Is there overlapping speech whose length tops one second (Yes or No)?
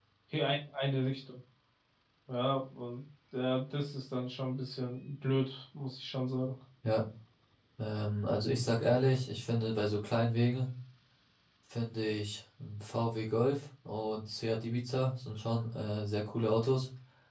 No